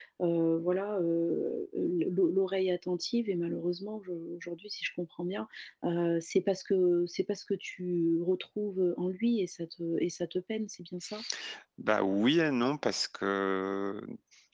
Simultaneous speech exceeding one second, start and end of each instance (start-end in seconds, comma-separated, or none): none